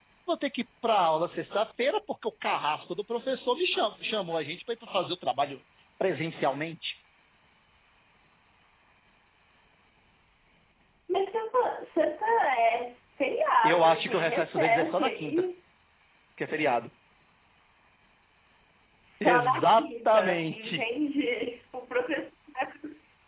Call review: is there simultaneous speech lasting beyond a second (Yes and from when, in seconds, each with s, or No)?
Yes, from 13.6 s